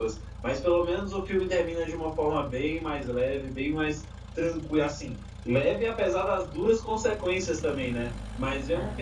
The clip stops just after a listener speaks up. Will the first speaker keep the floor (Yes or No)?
Yes